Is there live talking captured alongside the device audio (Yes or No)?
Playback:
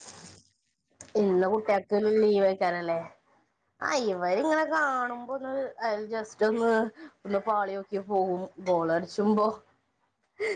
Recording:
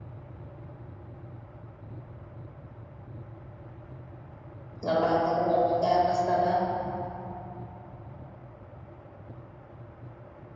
Yes